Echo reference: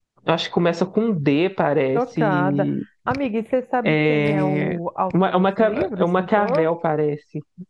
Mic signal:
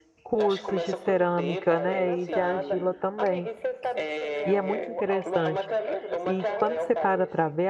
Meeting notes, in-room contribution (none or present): present